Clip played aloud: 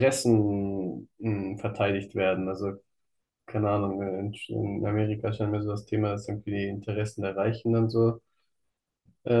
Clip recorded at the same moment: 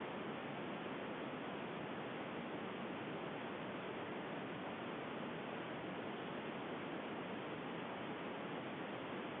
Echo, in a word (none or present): none